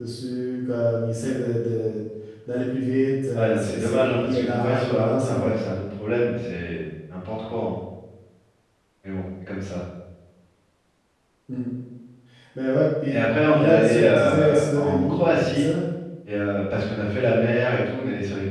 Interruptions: present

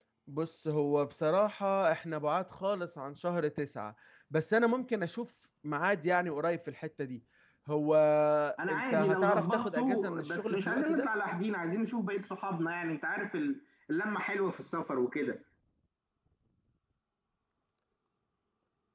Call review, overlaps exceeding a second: present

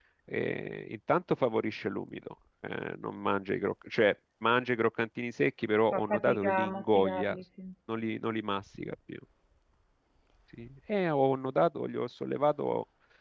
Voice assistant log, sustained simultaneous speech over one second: present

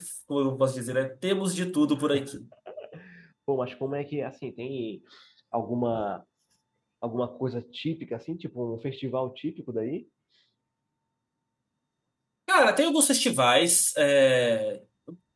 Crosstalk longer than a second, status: none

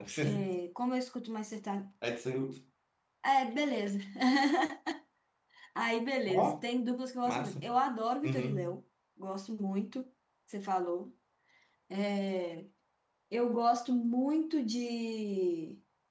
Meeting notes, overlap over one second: none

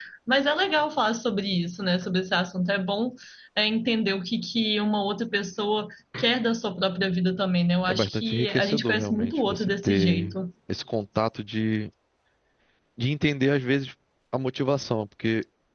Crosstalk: present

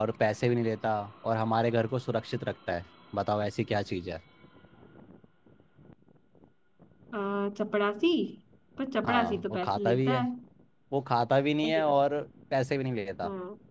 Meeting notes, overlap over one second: present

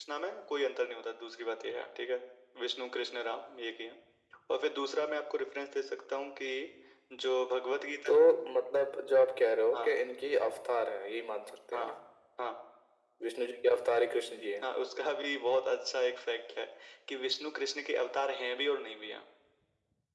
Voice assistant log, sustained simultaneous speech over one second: none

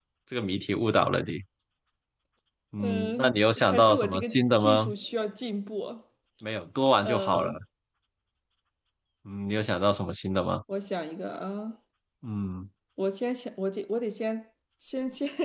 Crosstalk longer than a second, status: present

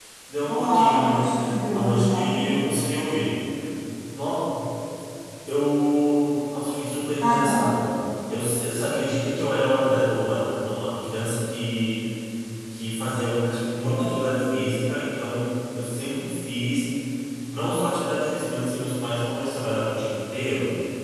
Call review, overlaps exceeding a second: present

